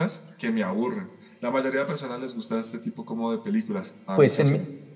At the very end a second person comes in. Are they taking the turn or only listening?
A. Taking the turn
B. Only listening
A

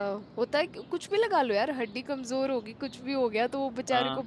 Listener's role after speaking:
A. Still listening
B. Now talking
A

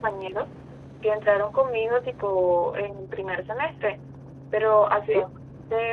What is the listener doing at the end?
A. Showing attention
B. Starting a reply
A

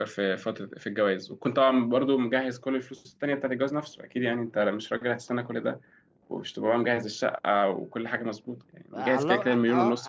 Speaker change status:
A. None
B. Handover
B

